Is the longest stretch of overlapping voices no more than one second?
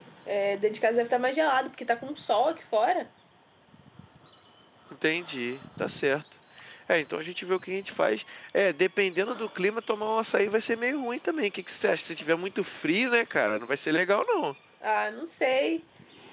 Yes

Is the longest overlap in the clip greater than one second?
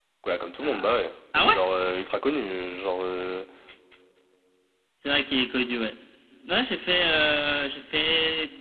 No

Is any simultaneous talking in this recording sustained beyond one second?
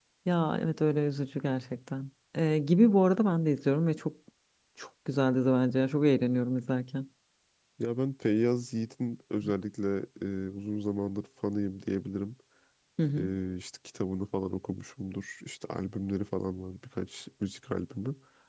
No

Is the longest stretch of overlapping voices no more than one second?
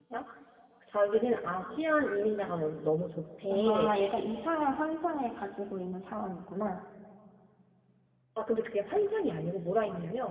Yes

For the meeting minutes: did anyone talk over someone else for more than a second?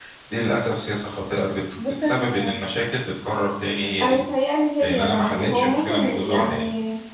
Yes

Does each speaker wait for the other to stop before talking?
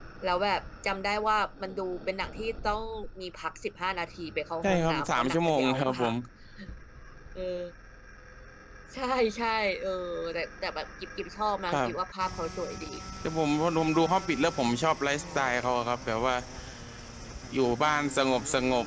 No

